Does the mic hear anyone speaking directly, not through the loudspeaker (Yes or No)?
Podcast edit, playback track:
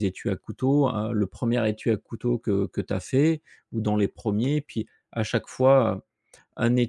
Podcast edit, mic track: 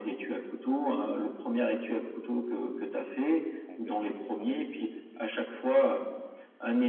Yes